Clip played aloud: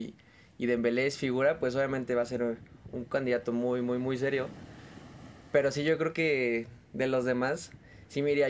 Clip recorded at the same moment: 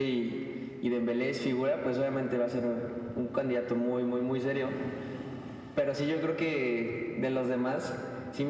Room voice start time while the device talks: none

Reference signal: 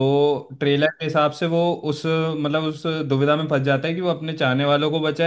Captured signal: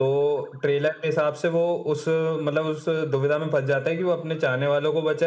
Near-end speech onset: none

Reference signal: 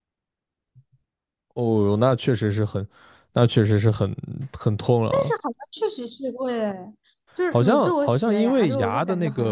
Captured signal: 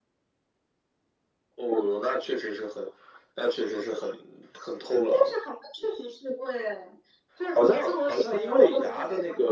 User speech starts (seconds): none

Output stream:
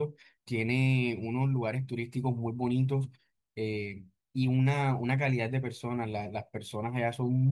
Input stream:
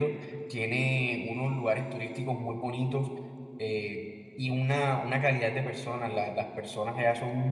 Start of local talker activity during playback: none

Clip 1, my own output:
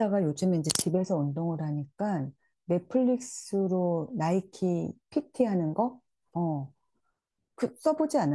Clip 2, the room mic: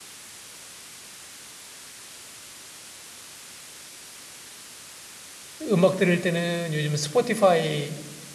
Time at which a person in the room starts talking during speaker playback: 6 s

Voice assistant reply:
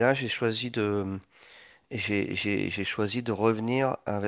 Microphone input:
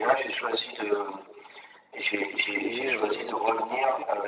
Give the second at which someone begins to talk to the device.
3 s

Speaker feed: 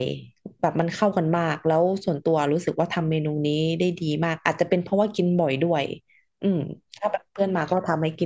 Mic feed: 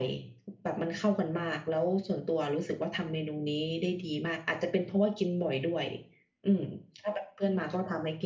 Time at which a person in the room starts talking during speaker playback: none

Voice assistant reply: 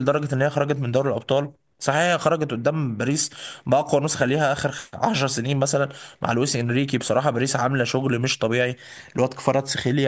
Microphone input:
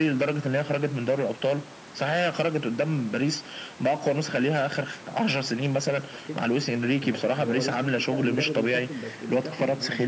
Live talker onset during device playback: 6 s

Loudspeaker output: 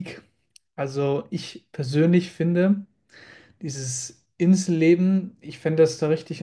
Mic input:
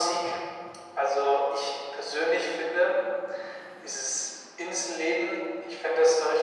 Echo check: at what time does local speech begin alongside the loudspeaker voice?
none

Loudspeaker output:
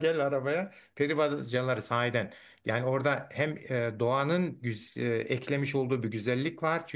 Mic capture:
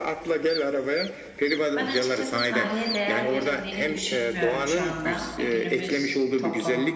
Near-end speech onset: 2 s

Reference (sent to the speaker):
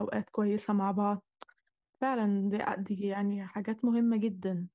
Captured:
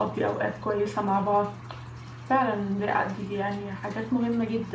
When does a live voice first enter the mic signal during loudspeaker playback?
none

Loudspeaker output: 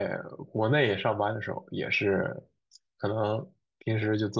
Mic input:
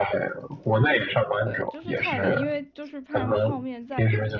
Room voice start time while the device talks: 1 s

